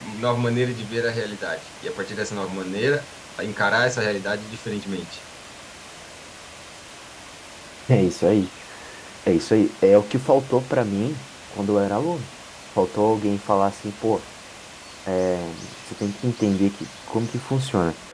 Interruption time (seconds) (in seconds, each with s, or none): none